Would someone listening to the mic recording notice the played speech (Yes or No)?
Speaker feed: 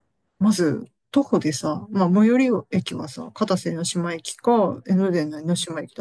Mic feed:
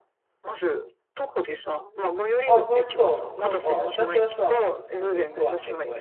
Yes